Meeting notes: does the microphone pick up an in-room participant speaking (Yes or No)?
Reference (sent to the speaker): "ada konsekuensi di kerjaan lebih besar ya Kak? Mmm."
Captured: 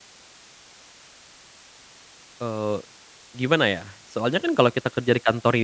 Yes